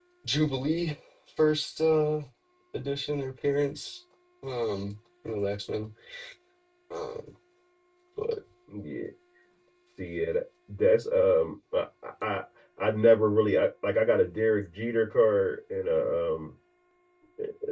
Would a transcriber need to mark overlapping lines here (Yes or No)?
No